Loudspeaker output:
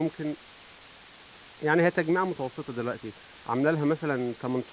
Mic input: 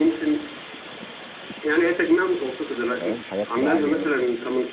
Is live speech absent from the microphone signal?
No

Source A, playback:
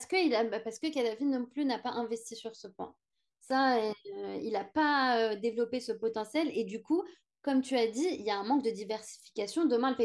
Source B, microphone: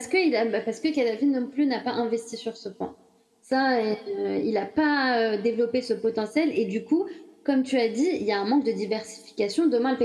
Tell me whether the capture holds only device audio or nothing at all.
Yes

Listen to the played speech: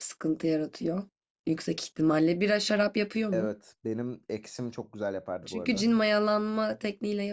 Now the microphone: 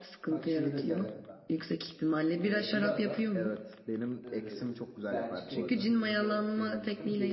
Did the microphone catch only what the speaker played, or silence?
No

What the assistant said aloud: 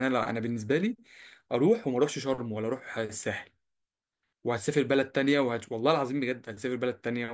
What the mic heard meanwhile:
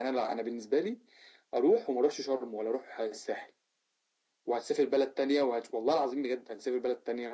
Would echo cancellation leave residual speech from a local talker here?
No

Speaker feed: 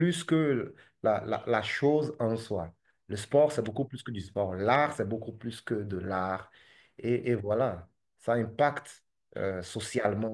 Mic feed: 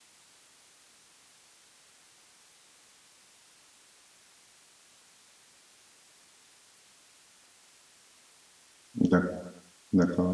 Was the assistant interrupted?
Yes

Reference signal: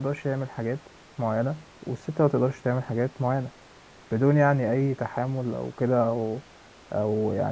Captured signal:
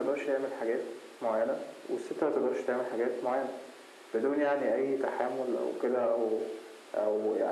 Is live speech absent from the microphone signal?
Yes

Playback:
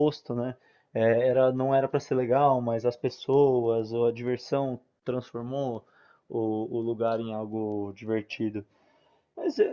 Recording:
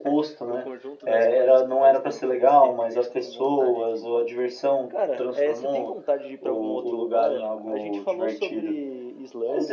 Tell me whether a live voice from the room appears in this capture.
Yes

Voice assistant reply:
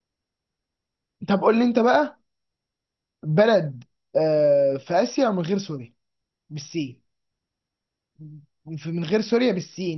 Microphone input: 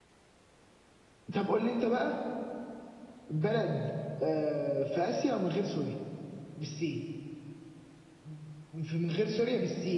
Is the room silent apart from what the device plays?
Yes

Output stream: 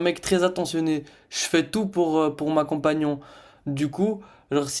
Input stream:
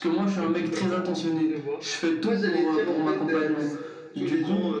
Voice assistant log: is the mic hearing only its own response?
No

